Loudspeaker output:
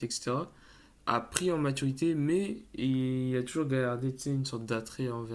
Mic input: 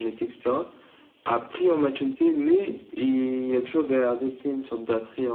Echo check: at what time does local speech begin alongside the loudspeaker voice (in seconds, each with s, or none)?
none